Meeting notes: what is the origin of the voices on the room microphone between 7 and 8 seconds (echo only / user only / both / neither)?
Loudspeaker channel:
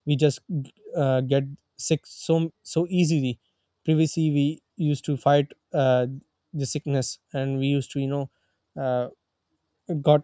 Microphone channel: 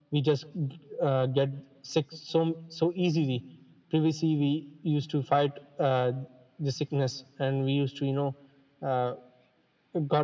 echo only